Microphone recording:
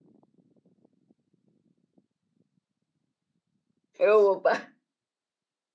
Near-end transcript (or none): ଏ ବୋପା